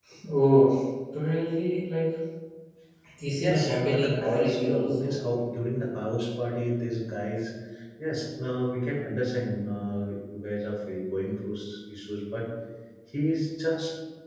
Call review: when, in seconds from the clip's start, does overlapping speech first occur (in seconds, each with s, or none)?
3.4 s